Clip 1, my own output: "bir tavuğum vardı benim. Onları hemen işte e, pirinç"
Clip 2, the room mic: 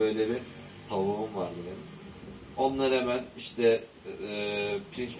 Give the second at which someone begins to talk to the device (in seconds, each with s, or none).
none